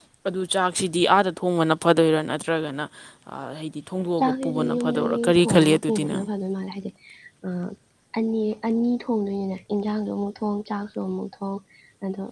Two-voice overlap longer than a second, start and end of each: 4.2-6.2

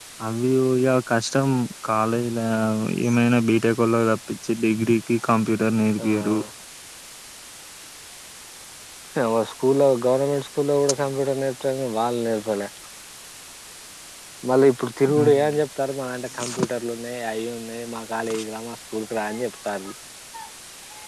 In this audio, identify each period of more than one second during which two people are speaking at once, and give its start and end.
none

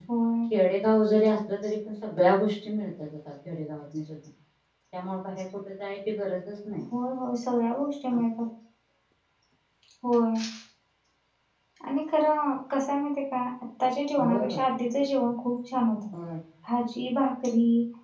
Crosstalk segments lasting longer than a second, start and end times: none

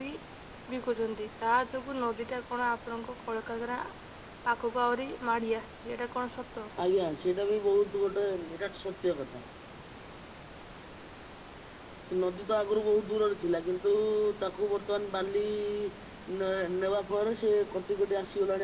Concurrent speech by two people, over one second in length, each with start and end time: none

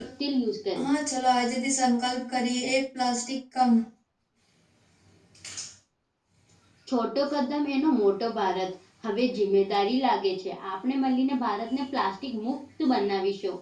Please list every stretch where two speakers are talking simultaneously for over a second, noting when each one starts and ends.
none

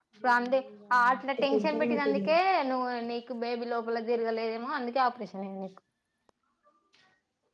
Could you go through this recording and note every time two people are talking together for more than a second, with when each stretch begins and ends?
1.0-2.3

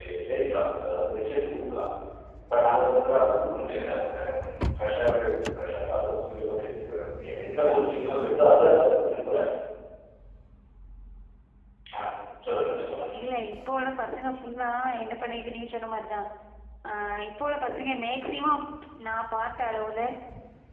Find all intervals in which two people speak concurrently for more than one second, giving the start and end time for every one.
none

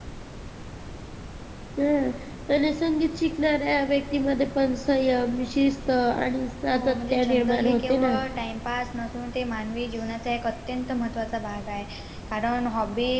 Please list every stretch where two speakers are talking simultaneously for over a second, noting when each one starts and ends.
6.8-8.2

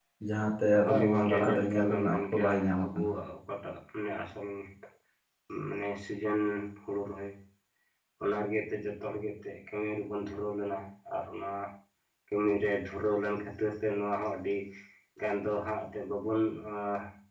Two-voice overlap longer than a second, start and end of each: 0.8-3.1

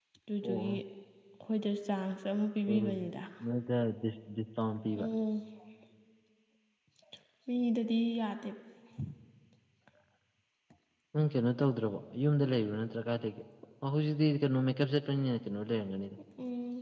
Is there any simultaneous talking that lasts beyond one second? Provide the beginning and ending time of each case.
none

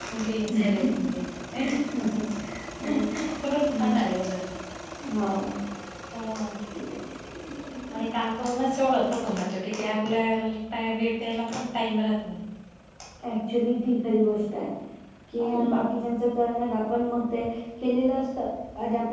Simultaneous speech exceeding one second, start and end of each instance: none

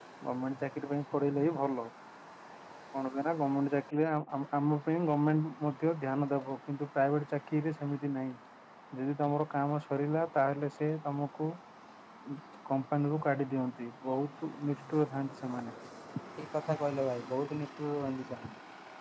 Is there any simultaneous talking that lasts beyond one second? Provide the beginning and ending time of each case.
none

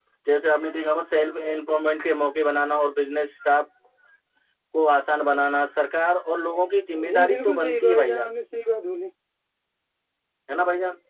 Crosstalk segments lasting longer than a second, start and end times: 7.1-8.3

